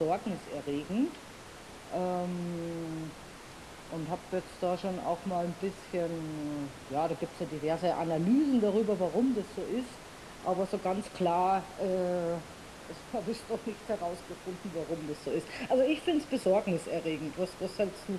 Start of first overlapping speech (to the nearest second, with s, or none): none